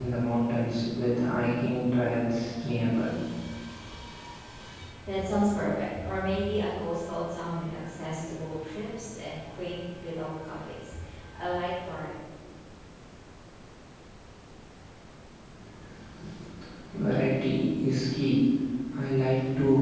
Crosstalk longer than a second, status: none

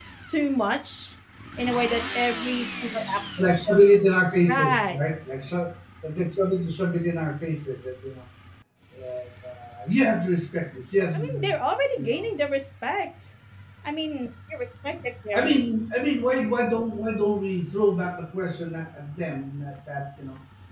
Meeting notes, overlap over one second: none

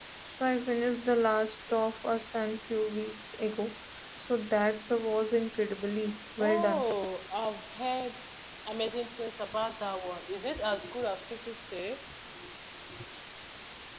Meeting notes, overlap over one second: none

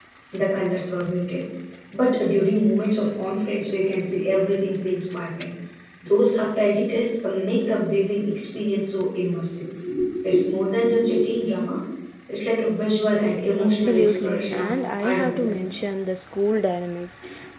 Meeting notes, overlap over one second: present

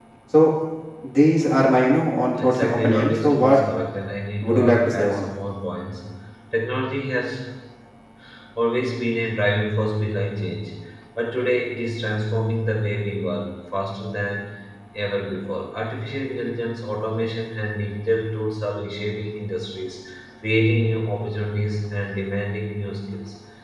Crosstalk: present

